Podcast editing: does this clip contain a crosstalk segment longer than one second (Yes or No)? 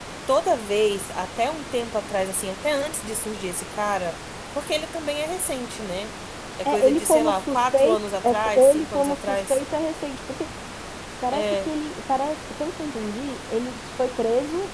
Yes